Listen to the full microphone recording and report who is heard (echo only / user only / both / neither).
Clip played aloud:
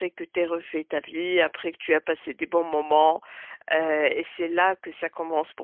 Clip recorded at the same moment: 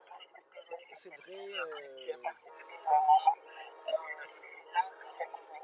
both